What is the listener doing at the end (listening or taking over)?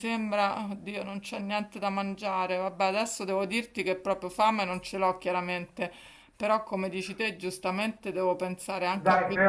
taking over